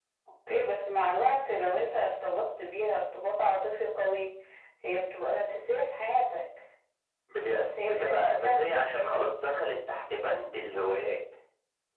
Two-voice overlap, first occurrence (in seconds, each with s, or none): 7.5 s